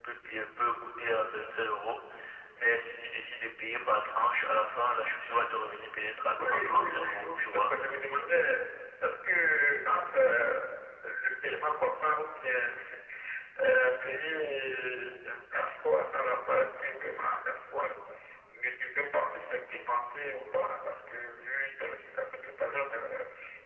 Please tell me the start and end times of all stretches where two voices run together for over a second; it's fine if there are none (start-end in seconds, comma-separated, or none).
6.4-7.7